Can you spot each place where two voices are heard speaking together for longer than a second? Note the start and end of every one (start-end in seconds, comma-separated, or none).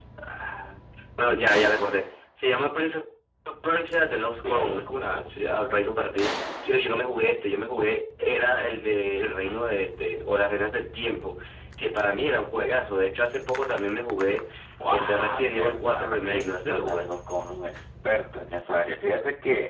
14.9-17.1